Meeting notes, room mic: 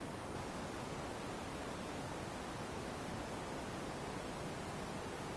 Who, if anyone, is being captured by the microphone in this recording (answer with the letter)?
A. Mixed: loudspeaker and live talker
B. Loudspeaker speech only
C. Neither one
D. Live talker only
C